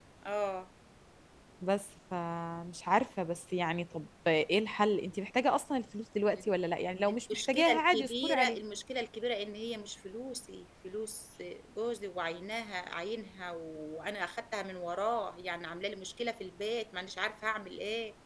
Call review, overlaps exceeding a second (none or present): present